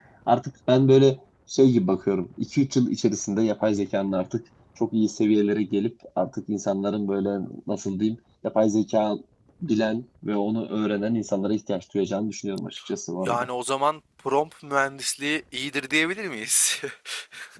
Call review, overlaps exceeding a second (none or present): none